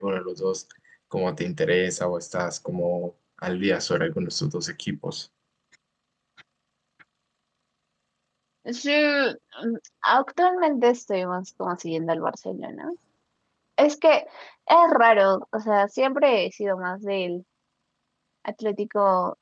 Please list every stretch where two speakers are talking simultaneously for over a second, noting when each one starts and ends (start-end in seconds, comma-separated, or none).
none